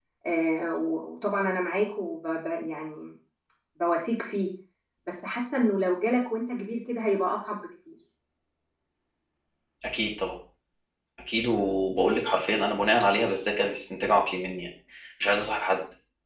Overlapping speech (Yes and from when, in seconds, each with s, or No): No